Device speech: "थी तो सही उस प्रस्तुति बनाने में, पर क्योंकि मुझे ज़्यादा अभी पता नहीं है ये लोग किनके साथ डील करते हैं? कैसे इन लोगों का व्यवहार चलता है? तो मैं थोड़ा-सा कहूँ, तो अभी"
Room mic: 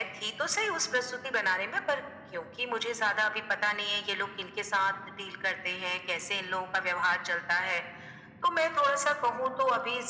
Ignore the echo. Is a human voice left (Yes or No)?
No